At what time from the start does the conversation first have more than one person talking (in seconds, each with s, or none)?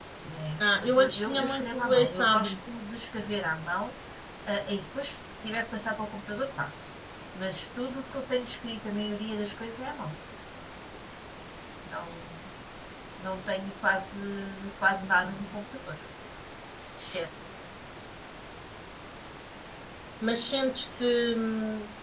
0.7 s